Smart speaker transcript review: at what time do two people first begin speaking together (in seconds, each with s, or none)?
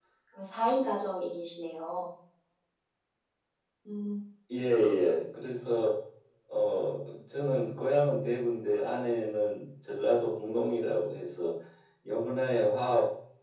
none